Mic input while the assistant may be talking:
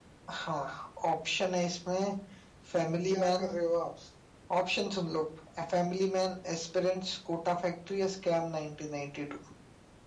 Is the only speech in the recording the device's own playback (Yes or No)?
No